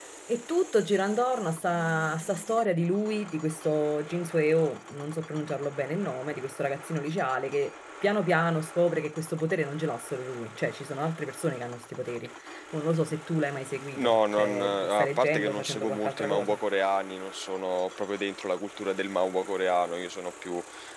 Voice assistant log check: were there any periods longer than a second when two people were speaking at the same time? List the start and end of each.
14.0-16.6

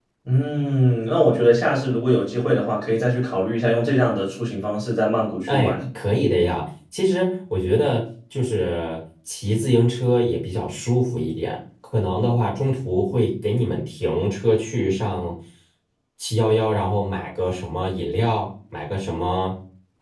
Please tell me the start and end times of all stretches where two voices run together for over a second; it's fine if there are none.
none

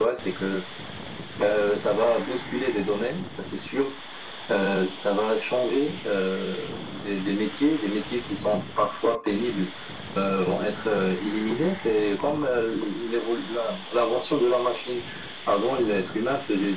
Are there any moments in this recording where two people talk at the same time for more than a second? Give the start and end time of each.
none

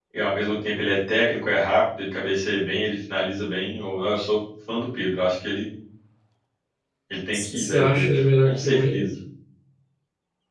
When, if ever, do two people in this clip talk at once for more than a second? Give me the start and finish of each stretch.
7.5-9.1

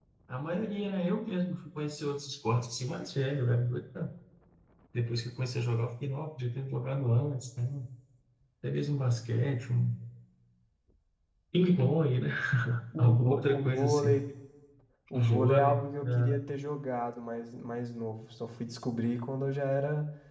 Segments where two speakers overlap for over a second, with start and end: 13.0-14.2, 15.1-16.4

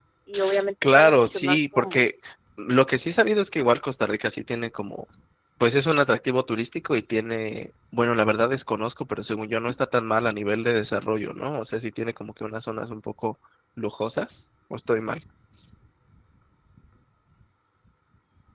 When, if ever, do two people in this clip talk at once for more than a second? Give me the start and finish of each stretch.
0.8-2.1

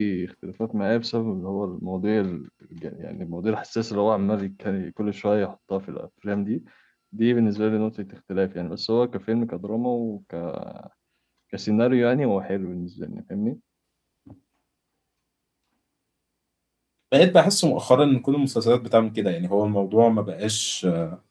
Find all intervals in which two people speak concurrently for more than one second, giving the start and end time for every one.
none

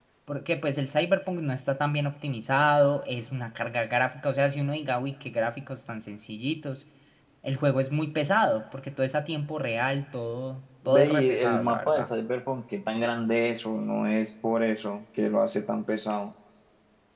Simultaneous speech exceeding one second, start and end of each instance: 10.8-12.1

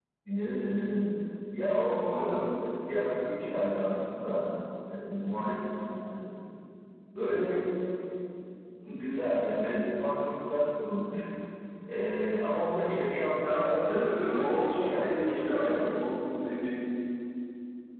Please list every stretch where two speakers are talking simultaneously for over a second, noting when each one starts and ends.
14.2-15.8

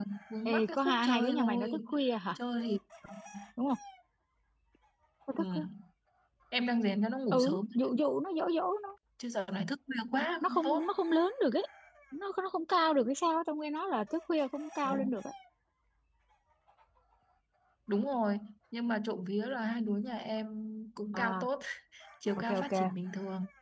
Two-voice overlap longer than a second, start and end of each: 0.5-1.8

